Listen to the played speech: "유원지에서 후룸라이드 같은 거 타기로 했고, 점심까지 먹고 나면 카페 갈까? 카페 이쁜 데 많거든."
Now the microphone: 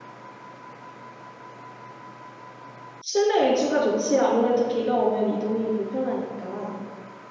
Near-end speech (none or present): present